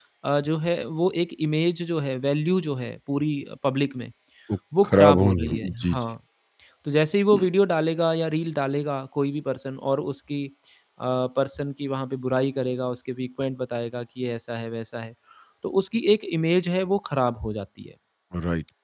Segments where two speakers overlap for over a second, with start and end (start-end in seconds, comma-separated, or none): 4.8-6.0